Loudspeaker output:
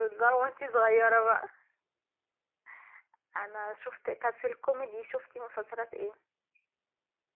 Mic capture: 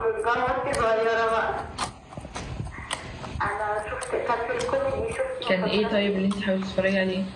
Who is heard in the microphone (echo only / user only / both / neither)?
both